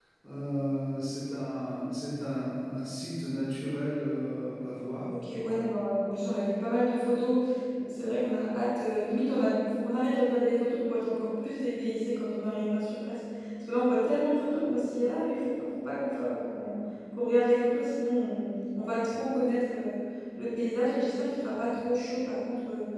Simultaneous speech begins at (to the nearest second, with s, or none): none